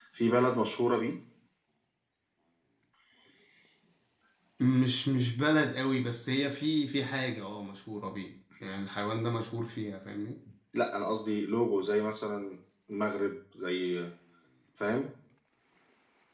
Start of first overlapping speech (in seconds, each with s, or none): none